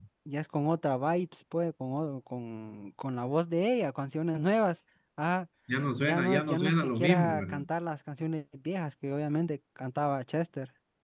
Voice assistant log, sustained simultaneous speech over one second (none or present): present